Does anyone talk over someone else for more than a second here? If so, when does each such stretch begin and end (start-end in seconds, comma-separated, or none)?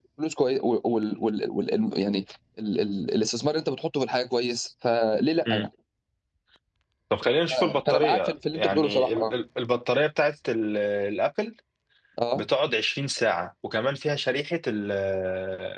7.5-9.3